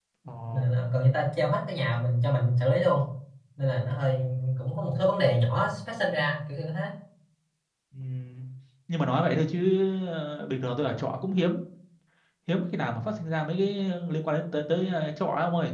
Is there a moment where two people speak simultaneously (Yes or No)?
No